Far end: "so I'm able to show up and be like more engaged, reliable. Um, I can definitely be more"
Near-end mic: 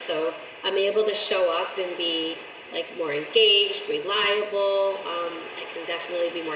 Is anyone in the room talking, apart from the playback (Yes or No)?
No